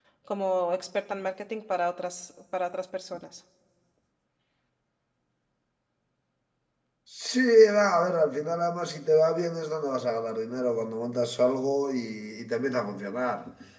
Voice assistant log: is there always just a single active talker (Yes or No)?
Yes